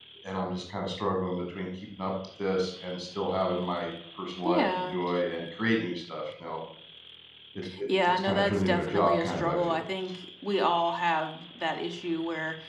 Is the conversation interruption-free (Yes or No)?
No